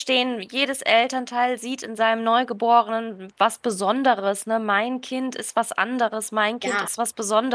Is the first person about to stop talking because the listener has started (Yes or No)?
No